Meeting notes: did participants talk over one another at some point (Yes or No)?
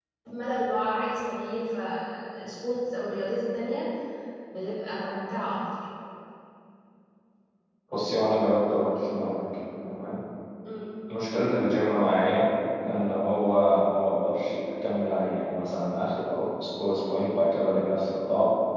No